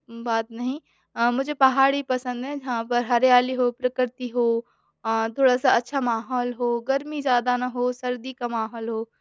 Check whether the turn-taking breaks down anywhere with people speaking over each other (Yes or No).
No